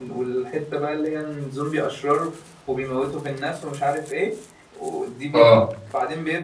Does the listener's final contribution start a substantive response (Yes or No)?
No